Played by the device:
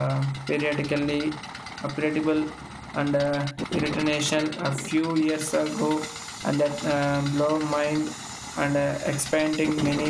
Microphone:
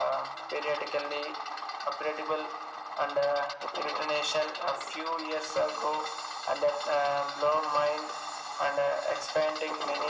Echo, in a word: present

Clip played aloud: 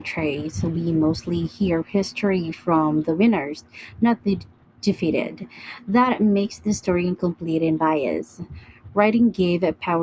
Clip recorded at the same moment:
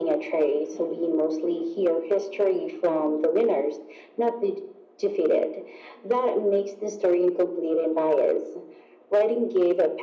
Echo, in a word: present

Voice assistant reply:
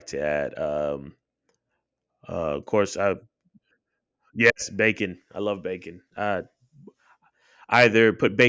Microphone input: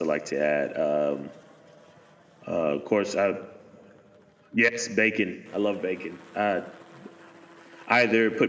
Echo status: present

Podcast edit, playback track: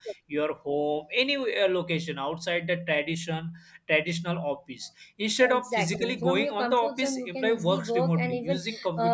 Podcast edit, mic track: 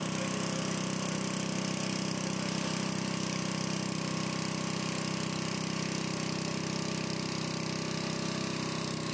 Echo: none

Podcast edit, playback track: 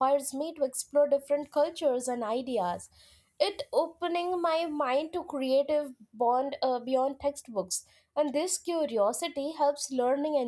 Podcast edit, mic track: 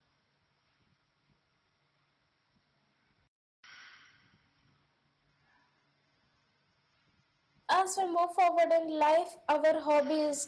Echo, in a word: none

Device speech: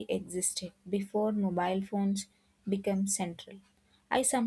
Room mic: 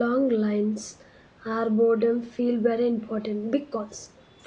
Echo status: none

